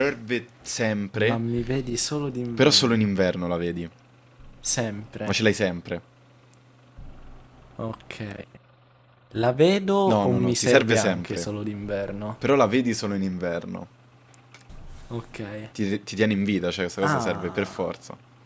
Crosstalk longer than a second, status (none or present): present